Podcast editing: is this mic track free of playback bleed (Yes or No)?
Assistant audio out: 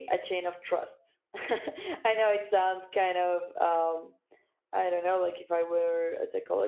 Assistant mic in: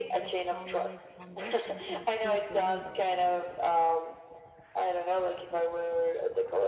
No